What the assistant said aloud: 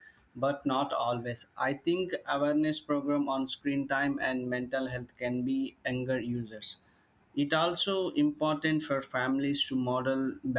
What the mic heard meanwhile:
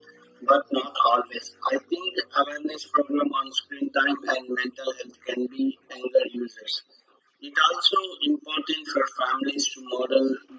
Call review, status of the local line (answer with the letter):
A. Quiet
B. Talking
A